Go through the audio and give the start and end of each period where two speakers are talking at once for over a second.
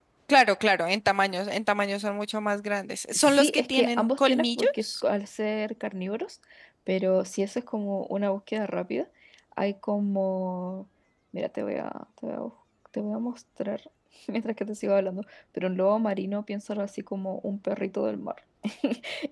3.1-5.0

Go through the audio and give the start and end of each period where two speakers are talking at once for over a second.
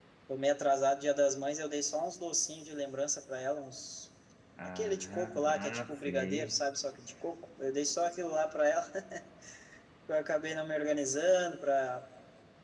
4.6-6.6

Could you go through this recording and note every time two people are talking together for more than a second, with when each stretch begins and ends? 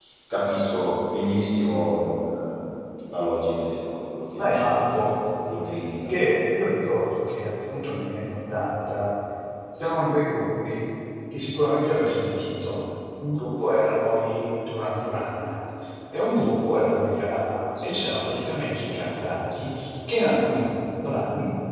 none

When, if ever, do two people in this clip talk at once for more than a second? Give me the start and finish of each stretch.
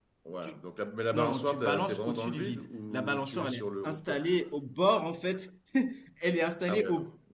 1.1-4.2

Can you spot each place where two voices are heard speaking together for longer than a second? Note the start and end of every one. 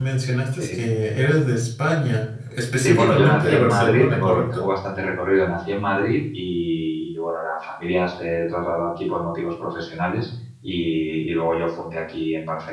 2.8-4.6

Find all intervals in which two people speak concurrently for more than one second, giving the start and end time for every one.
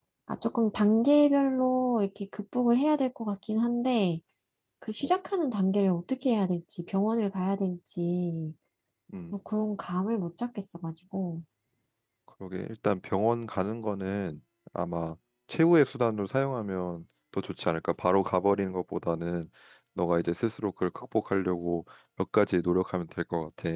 none

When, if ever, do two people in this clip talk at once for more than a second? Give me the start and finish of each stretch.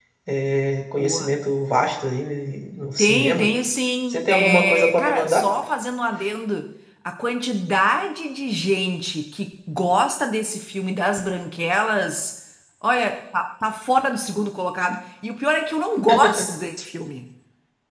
4.1-5.5

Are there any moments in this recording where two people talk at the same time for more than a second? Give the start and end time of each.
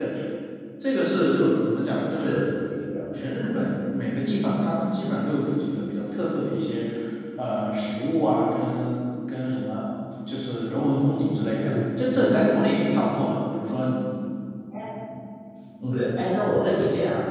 none

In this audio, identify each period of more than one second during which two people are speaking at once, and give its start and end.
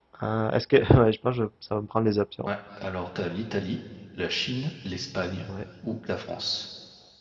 none

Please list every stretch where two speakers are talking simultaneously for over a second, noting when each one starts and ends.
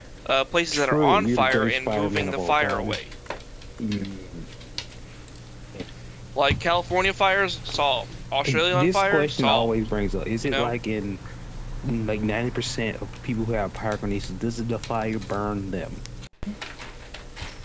0.7-3.0, 8.4-9.7

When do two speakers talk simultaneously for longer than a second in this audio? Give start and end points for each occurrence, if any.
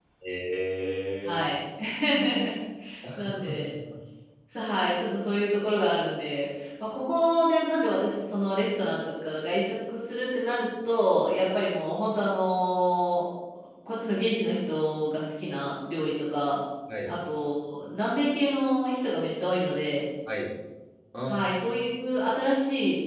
none

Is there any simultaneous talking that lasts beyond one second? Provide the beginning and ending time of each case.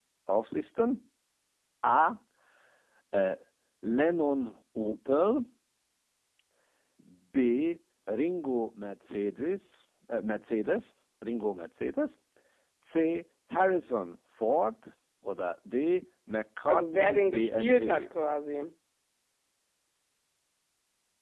16.7-18.0

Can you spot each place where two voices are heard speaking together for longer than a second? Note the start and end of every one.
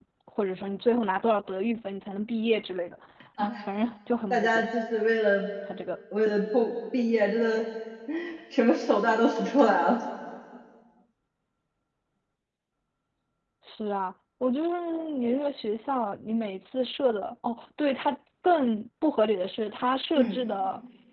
none

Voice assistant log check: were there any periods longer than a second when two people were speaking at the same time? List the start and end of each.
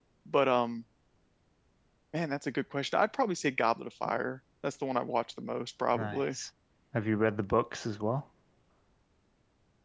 none

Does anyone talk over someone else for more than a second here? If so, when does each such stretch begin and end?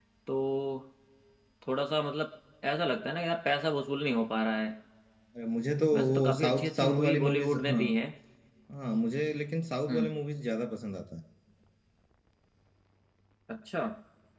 5.9-7.8

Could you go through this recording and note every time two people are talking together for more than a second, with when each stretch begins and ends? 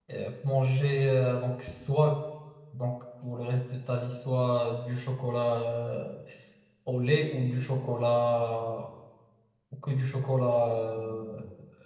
none

